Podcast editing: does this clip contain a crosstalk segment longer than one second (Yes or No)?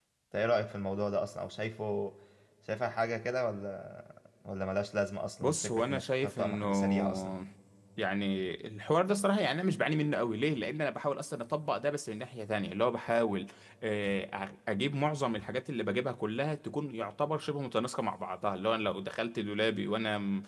Yes